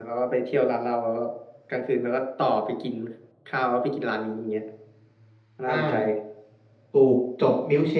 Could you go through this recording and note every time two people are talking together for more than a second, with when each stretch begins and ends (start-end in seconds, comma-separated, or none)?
none